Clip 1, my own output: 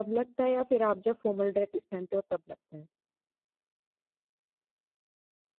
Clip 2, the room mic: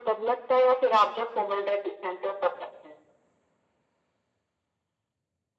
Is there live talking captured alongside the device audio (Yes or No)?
No